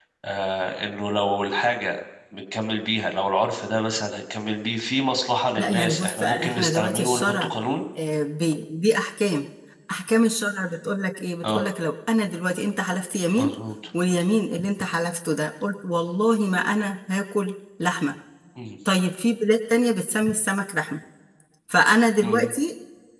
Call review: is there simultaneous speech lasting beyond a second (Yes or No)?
Yes